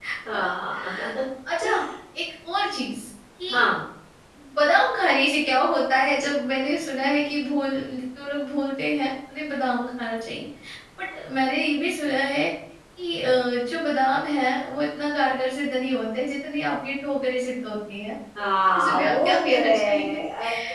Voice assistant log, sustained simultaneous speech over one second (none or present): present